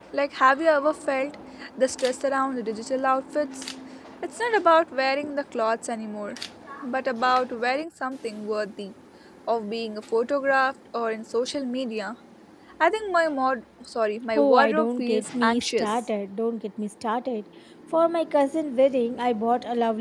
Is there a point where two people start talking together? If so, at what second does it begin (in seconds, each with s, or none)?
14.4 s